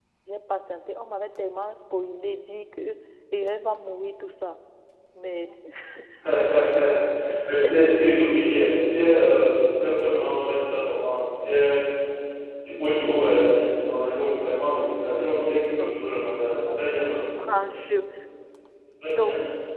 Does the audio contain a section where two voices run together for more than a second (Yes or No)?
No